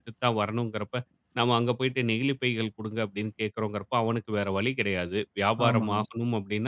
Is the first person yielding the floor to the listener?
No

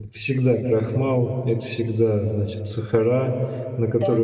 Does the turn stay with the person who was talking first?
Yes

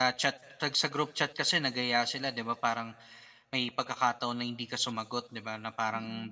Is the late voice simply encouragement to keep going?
Yes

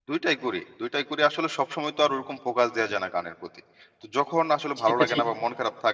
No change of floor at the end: Yes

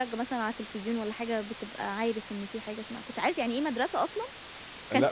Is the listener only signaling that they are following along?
No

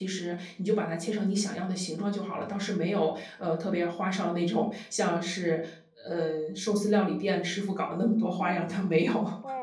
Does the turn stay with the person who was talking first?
No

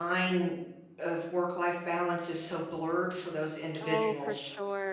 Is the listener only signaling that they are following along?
No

